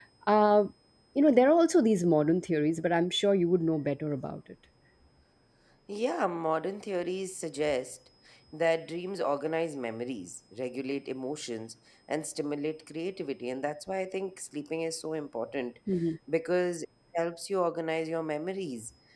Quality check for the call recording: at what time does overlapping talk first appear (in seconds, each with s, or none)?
none